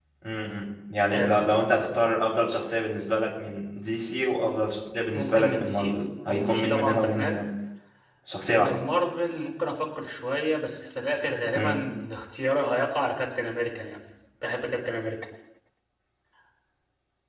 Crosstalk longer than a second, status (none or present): present